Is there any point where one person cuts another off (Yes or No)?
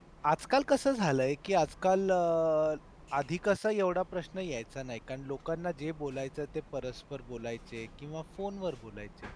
No